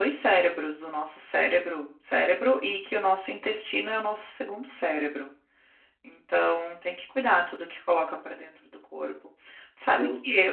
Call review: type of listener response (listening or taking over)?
listening